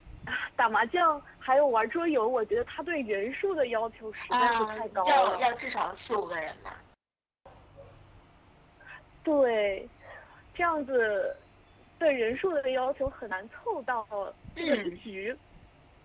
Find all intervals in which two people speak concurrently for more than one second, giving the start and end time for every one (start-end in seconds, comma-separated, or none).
4.3-5.5